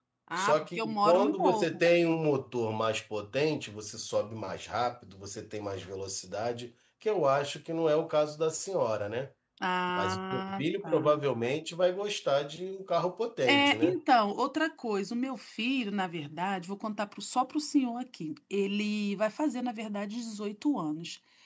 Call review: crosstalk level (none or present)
present